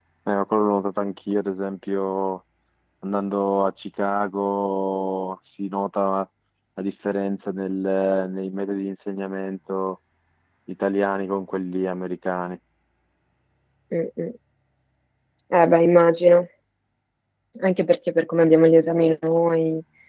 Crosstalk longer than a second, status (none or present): none